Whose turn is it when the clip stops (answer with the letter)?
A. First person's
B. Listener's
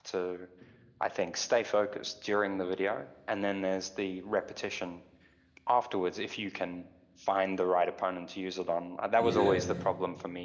A